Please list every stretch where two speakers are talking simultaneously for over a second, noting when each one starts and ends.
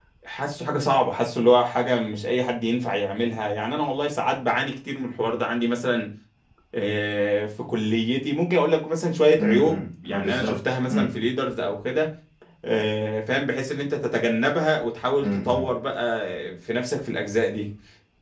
9.4-10.8

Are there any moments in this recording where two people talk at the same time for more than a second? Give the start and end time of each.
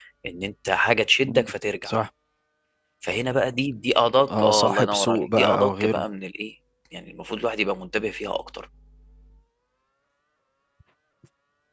4.3-6.0

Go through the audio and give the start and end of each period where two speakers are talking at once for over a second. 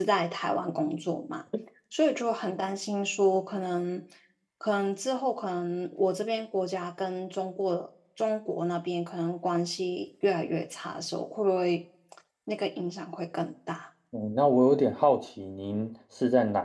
none

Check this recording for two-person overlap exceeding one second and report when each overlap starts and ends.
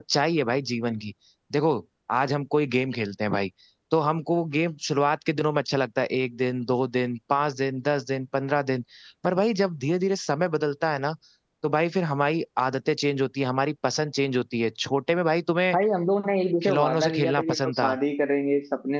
16.6-18.0

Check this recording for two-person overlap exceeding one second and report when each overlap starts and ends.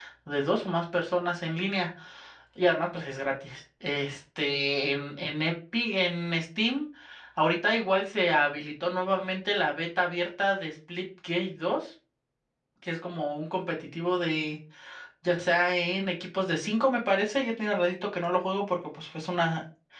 none

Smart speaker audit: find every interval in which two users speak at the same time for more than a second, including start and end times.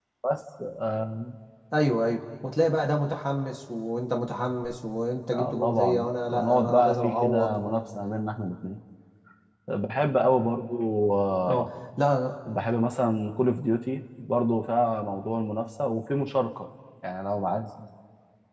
5.3-7.8

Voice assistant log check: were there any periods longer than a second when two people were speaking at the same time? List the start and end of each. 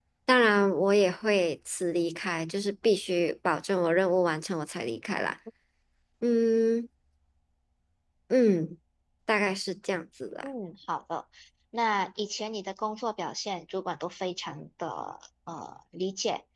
none

